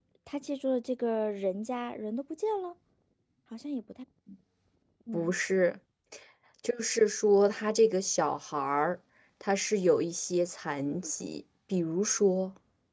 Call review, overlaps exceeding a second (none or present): none